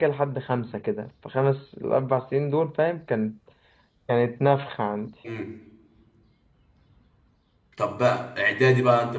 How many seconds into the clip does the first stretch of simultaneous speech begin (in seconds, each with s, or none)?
none